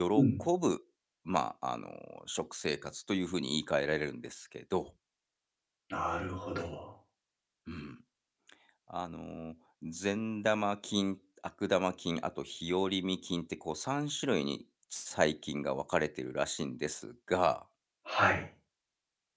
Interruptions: none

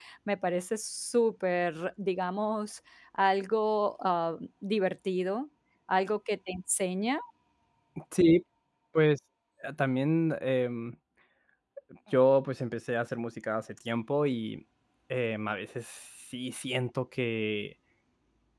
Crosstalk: none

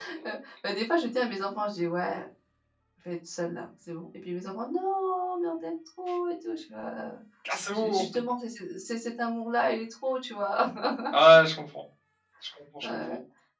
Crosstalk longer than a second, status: none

